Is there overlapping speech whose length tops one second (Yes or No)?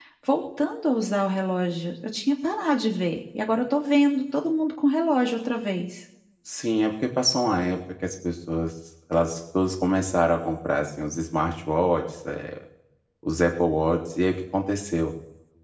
No